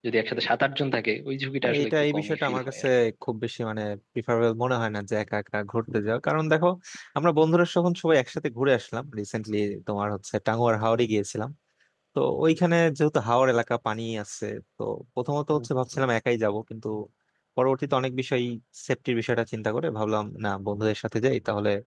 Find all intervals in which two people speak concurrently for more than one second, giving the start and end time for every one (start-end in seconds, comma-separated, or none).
1.6-2.9